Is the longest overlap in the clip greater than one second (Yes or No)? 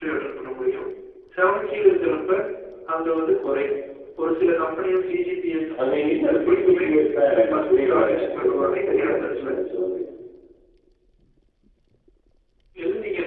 Yes